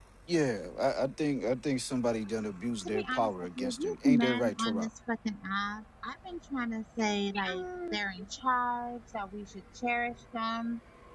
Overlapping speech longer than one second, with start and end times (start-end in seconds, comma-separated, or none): 2.8-4.9